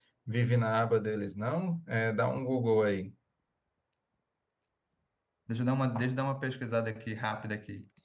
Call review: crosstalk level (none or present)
none